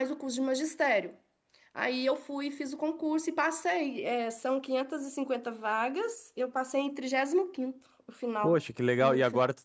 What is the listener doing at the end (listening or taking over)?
taking over